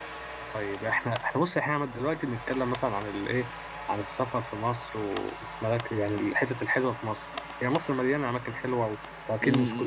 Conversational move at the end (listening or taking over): taking over